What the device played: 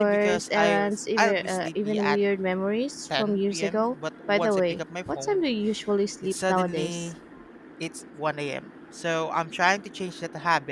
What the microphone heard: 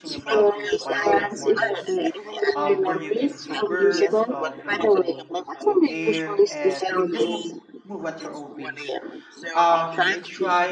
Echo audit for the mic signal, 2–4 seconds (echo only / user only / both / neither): both